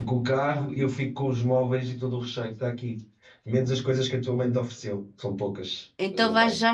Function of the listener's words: taking over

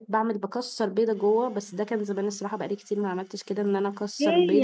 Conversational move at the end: taking over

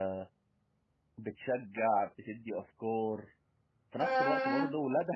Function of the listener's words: listening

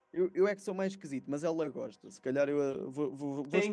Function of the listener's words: taking over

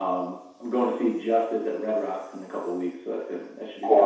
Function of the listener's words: taking over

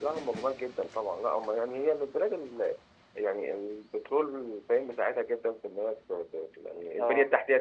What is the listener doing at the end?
listening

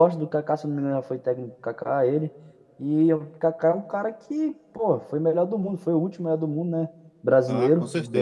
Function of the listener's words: taking over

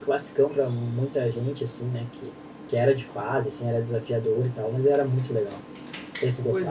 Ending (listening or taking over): taking over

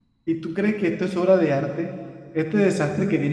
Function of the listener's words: listening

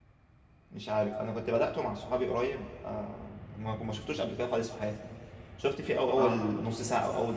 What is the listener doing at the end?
listening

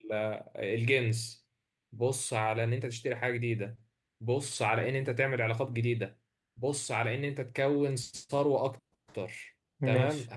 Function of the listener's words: listening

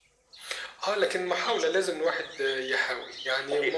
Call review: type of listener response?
taking over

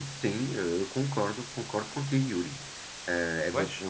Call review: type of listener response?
listening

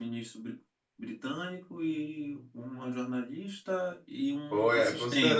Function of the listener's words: taking over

